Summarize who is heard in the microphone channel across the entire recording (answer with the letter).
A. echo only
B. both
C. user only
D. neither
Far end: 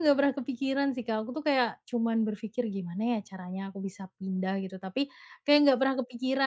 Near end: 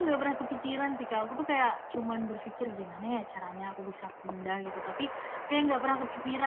A